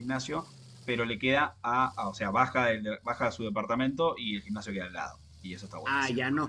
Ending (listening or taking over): taking over